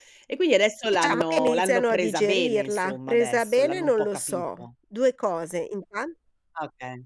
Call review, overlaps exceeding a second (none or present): present